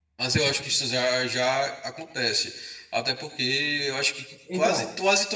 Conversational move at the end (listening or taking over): listening